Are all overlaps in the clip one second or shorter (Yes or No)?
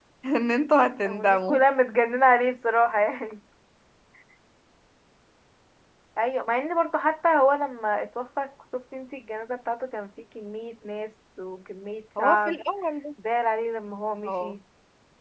Yes